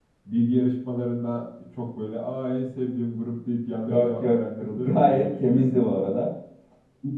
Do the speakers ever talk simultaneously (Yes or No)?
Yes